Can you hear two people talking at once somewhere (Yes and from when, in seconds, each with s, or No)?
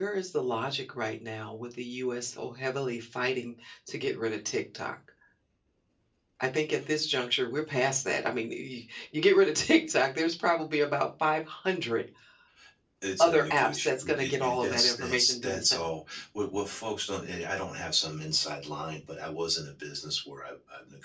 Yes, from 13.2 s